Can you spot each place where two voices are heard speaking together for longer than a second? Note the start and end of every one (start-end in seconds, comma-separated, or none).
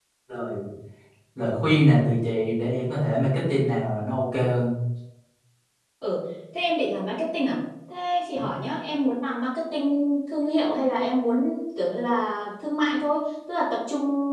none